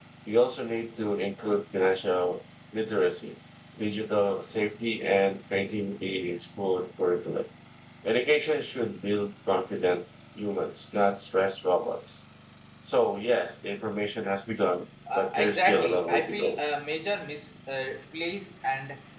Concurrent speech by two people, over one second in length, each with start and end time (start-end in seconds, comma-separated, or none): 15.2-16.6